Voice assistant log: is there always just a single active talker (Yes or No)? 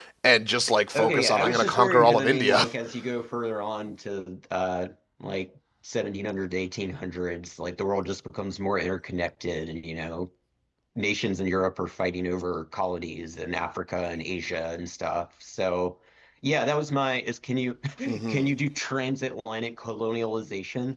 No